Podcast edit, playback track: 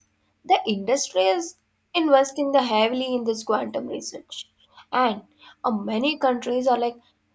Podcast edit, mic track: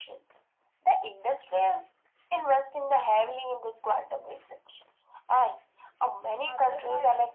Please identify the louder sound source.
echo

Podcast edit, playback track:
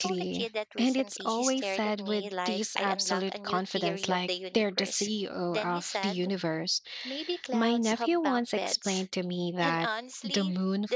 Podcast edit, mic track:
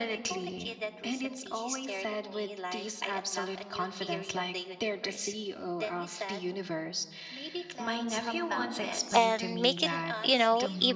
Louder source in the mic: user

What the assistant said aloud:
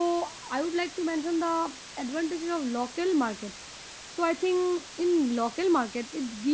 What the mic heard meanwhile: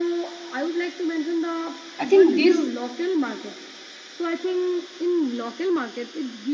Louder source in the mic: user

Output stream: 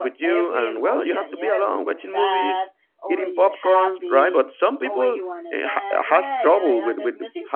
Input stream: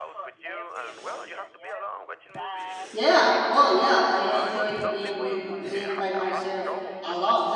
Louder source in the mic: user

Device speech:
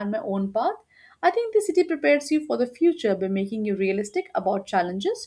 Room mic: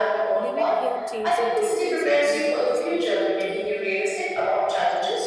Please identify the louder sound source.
echo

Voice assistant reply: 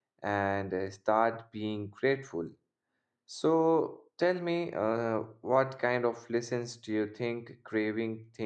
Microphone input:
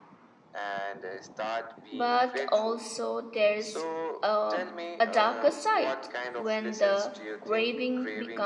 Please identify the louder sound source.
user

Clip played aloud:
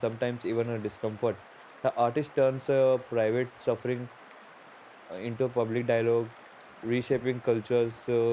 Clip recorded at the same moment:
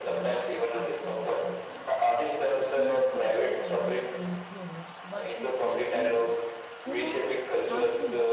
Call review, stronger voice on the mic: echo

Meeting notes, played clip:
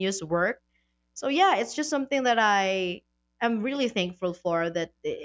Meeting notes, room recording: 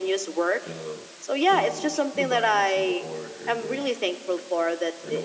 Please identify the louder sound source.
echo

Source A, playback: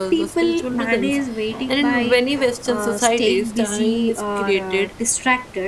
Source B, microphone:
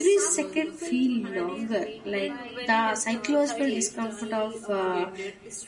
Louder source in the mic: user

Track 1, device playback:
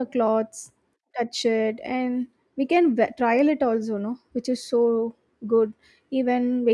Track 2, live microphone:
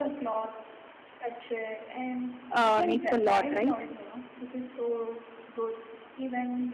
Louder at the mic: user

